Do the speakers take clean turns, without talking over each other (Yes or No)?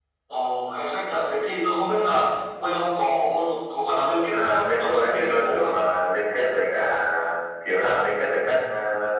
No